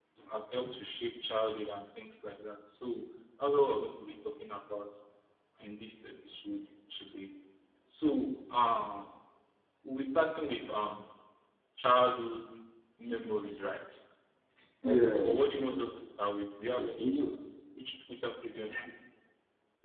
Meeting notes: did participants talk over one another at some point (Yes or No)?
Yes